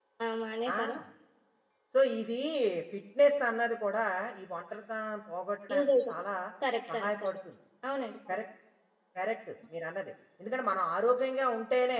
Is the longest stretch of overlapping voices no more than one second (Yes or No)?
Yes